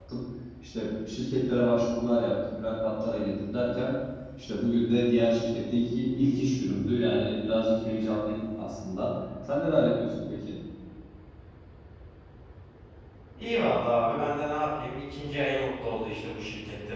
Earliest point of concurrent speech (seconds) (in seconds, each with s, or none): none